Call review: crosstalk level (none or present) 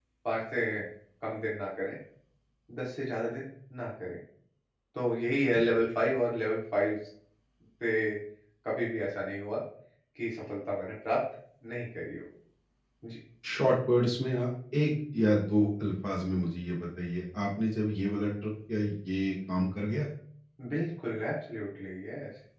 none